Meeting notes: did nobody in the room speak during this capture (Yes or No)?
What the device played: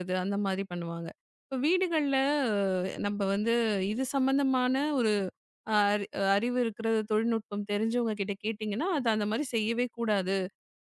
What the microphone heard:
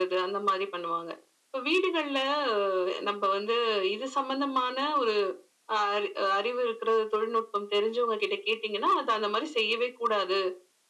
Yes